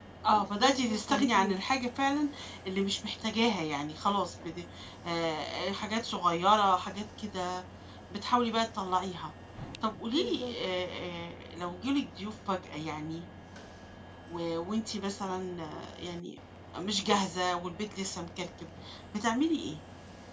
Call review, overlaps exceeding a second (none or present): present